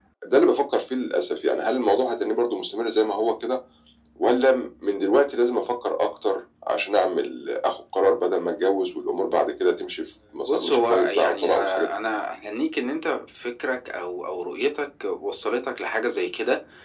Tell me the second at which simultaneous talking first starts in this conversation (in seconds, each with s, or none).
10.5 s